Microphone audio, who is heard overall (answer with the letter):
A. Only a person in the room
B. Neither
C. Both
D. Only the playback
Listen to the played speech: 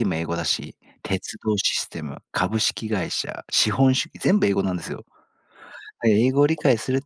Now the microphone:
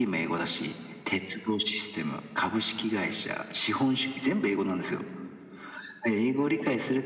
D